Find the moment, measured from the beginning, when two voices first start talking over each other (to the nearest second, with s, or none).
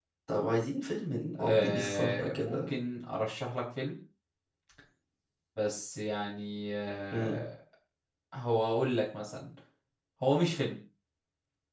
1 s